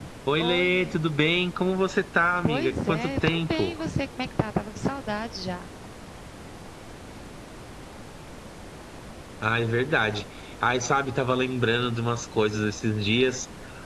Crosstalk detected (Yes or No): Yes